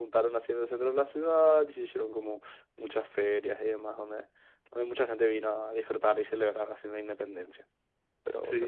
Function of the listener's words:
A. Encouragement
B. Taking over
B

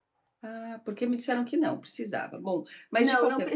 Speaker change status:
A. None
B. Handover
B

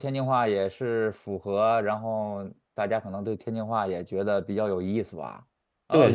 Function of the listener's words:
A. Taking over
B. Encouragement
A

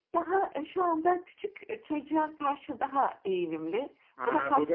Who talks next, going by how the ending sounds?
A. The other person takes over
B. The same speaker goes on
A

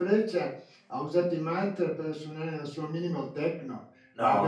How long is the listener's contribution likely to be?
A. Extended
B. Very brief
B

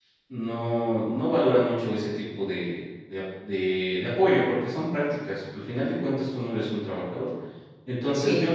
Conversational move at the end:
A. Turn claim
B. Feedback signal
B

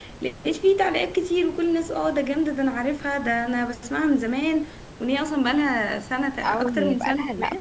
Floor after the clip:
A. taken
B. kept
A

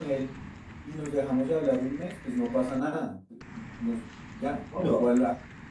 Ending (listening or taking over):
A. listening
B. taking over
A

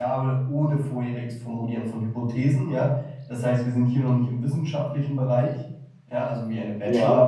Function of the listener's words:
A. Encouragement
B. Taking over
A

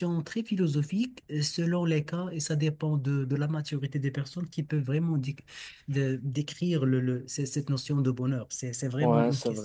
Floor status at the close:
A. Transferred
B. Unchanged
A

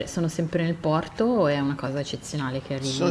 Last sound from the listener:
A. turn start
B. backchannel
A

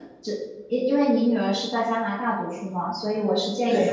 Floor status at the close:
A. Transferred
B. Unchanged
B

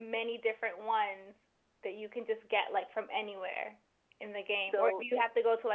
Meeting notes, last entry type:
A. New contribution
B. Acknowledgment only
B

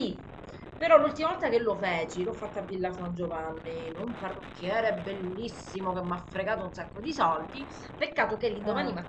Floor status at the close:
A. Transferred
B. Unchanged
B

